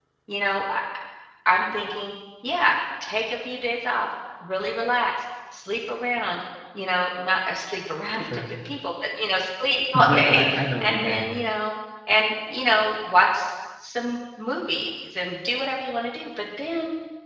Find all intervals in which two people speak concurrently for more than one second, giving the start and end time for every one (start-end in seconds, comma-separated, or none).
9.9-11.2